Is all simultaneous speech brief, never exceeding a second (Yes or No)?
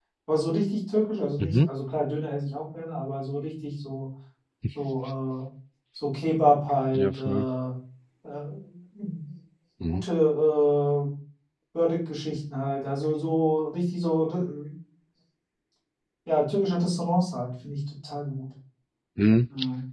Yes